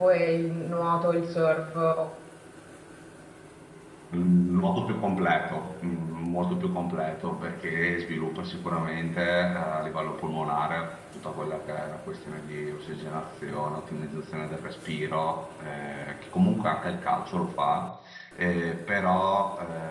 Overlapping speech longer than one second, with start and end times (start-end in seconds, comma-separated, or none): none